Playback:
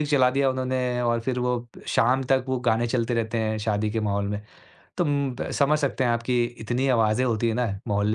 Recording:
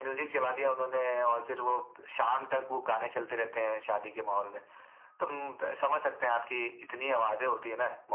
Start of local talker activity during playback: none

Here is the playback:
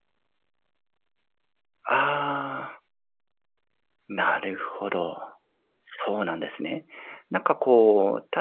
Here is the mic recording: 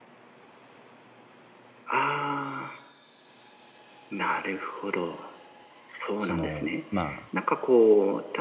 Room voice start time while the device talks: 6.2 s

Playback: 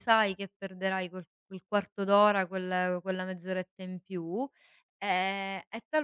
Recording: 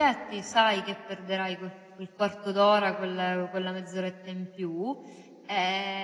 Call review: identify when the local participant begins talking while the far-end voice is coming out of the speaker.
none

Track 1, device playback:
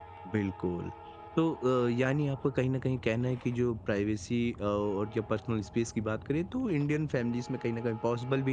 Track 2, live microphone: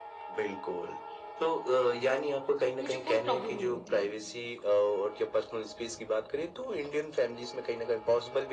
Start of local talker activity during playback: 2.8 s

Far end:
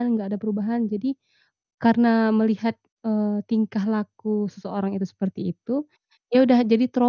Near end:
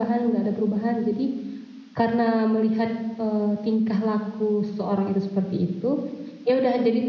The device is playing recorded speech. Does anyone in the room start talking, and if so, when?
none

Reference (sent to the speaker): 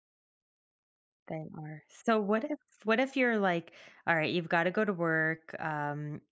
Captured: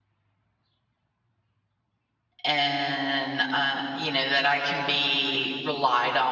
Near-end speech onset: 2.4 s

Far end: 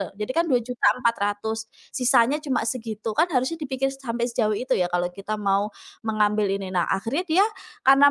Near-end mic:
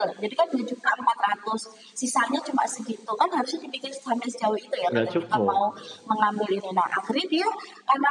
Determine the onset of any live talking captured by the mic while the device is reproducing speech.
4.9 s

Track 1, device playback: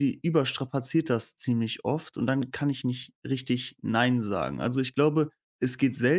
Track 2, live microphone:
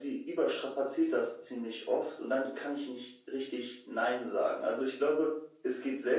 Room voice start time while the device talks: none

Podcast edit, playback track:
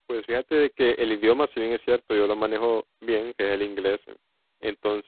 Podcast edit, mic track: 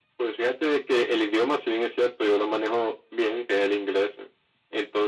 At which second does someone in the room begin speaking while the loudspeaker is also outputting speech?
none

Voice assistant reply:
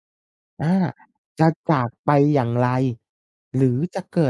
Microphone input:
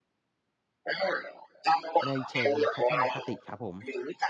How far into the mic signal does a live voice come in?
2.0 s

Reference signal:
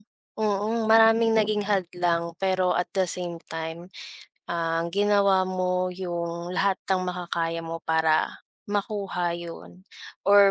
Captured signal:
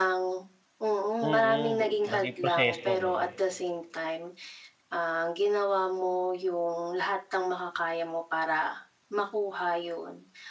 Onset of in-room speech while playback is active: 1.2 s

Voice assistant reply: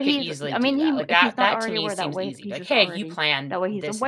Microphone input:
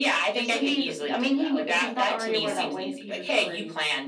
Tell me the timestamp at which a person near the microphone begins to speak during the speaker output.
2.4 s

